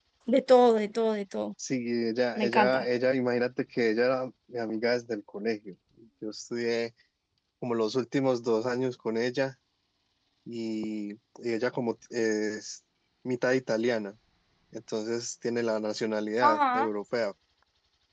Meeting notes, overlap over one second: none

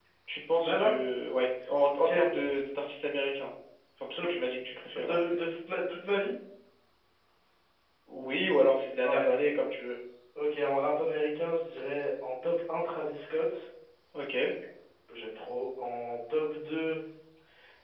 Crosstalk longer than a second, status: none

